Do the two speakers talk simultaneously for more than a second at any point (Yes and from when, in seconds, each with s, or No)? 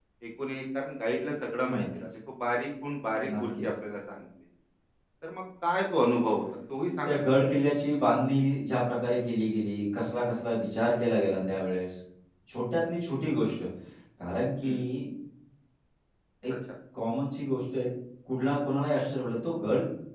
No